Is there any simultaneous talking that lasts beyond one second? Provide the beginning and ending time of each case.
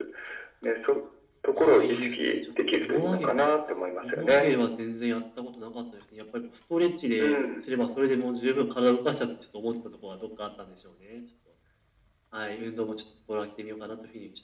1.6-3.5

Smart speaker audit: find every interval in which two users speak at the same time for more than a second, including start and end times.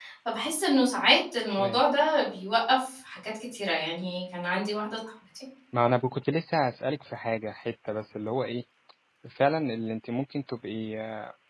none

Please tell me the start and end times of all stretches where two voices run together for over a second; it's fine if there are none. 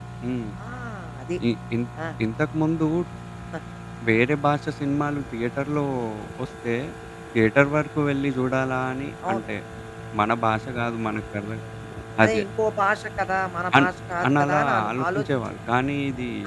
14.3-15.6

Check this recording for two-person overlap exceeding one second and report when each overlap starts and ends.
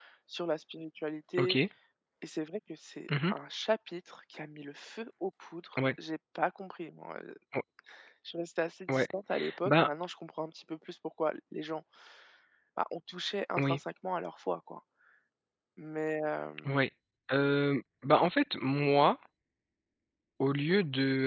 none

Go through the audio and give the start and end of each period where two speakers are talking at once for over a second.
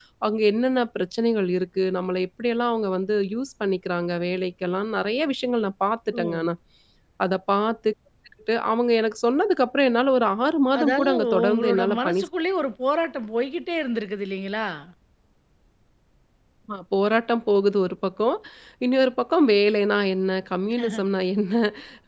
10.8-12.2

